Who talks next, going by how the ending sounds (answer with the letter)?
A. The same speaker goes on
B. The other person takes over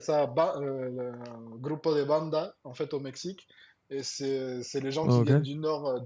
A